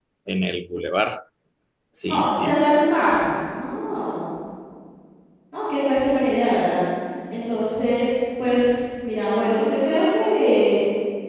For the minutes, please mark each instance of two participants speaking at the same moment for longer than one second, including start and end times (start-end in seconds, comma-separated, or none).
none